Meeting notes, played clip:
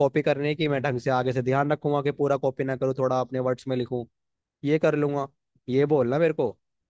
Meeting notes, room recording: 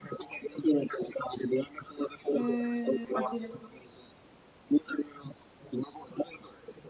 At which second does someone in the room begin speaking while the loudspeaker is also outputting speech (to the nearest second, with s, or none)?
2 s